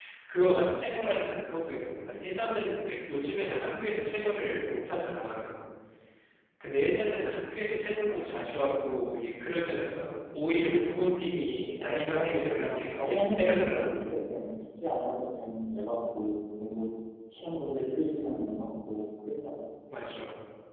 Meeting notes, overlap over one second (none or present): present